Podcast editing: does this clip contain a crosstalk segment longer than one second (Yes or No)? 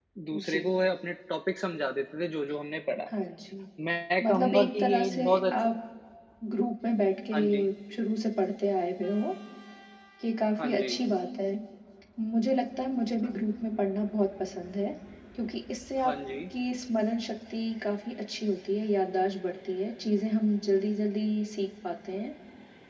Yes